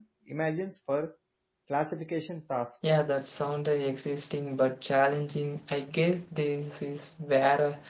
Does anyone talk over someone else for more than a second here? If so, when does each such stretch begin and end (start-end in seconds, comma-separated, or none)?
none